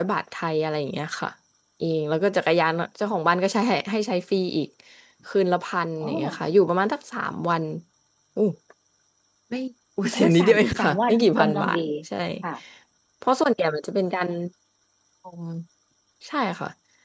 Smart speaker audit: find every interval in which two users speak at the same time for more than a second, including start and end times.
10.1-11.8

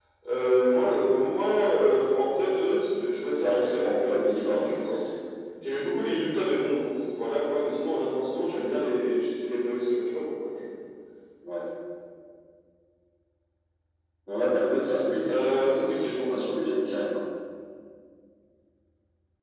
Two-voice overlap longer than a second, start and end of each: 3.4-5.0, 15.3-16.5

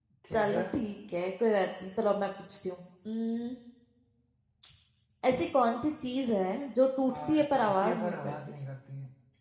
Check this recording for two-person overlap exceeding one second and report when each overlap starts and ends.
7.1-8.3

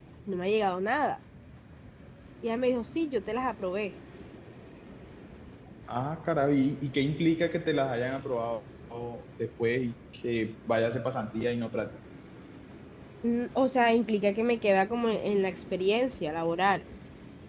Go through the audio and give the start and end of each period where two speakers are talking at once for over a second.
none

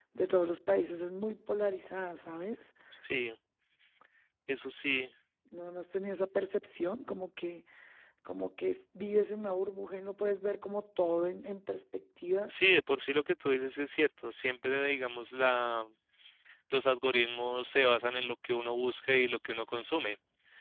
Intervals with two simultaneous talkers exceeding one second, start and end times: none

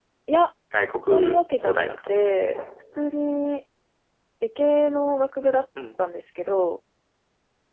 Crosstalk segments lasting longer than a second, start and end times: 1.0-2.3

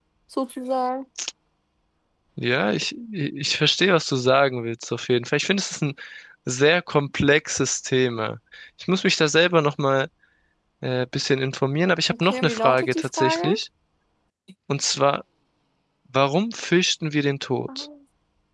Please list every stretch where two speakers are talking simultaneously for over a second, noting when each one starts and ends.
12.1-13.5

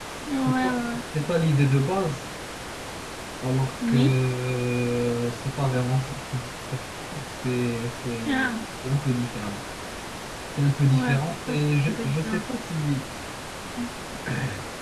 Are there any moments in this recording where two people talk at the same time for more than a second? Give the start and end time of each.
10.9-12.4

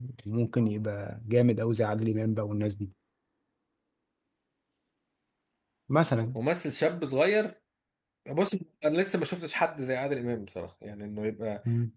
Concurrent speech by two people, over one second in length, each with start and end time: none

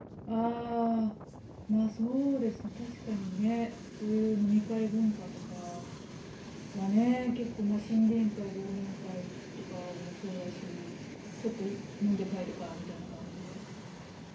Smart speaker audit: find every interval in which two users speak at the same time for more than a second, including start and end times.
none

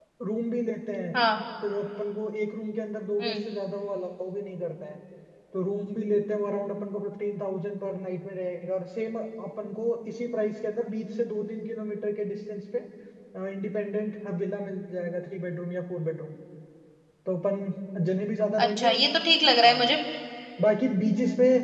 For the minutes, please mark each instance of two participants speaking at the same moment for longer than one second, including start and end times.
none

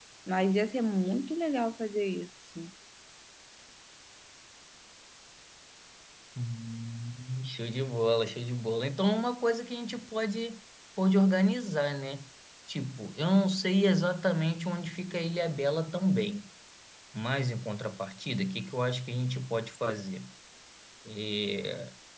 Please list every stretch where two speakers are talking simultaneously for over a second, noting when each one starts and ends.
none

